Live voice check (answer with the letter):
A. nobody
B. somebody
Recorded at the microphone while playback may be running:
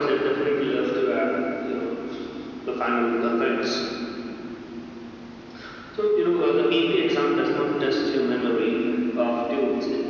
A